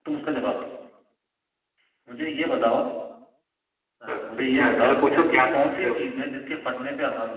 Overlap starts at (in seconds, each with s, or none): 4.1 s